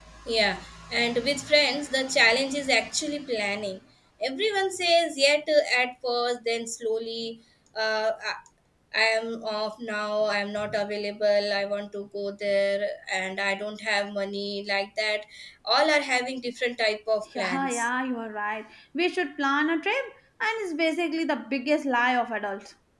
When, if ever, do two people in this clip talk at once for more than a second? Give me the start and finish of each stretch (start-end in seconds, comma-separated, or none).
none